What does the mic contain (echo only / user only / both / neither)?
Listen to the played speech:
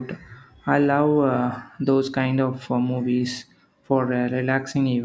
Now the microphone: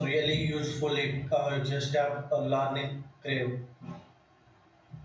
user only